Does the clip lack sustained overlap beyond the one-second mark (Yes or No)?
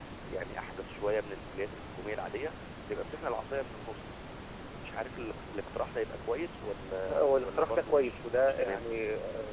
No